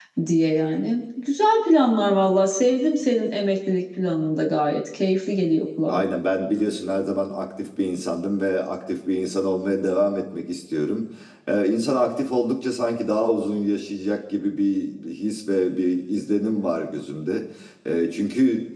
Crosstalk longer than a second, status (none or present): none